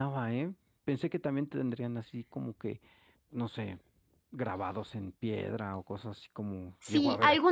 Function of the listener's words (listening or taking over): taking over